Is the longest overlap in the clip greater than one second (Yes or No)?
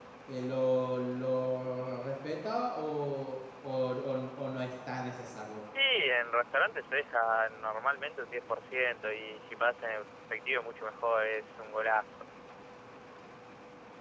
No